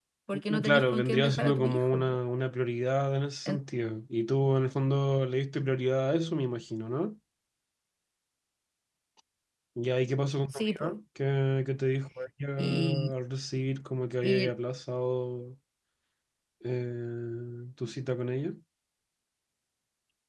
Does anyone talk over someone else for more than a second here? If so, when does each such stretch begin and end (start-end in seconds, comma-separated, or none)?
0.5-2.2